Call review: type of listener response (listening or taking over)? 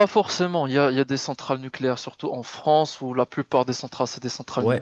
taking over